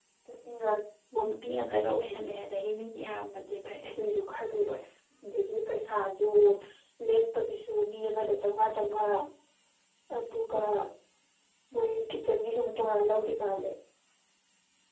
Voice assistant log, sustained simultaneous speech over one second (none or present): none